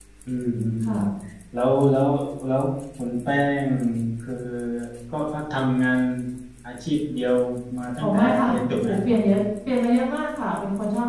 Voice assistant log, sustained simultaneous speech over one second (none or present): present